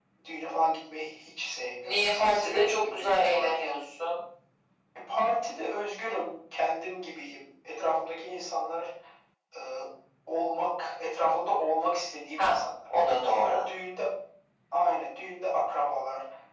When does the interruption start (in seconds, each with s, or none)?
1.8 s